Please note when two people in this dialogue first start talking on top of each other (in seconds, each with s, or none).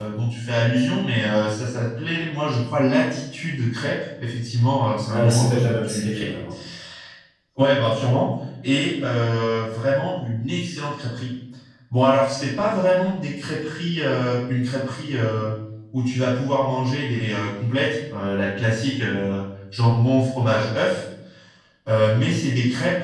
5.1 s